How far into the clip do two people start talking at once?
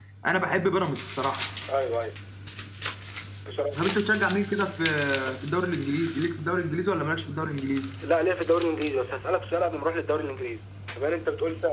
none

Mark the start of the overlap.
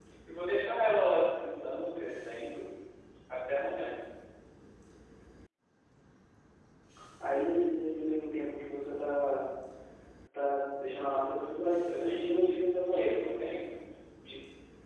11.6 s

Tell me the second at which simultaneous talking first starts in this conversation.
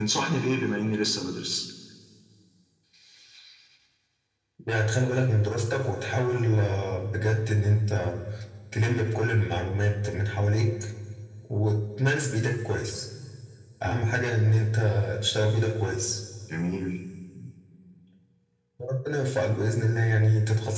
none

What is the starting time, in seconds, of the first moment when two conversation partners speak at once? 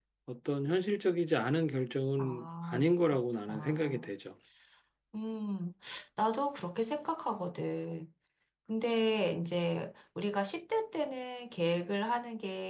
2.2 s

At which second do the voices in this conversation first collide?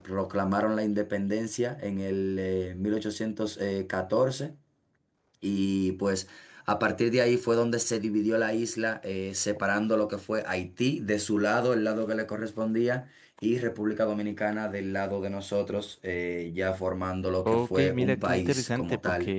17.4 s

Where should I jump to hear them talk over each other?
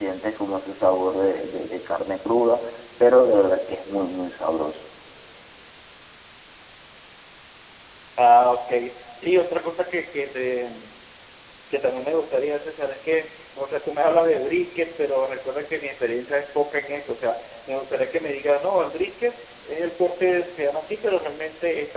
none

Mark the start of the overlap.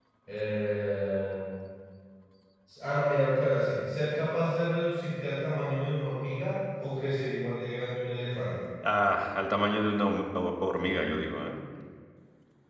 none

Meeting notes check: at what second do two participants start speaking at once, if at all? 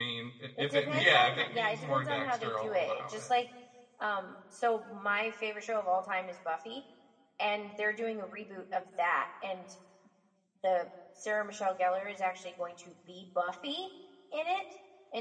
0.6 s

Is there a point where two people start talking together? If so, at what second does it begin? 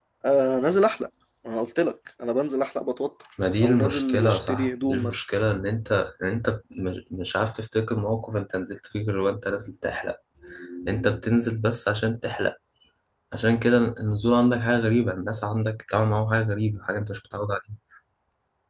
3.6 s

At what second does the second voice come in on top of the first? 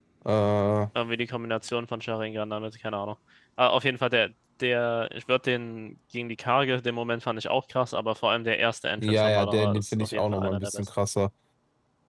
9.0 s

